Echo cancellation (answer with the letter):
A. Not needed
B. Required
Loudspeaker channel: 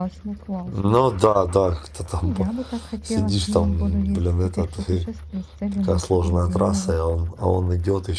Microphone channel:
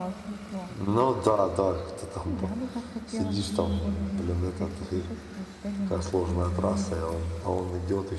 B